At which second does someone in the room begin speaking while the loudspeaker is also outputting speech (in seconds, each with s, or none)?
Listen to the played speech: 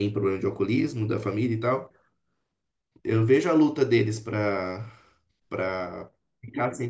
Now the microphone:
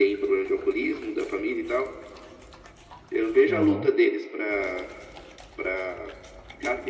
3.5 s